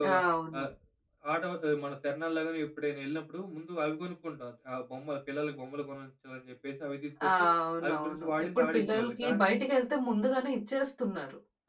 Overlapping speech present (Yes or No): Yes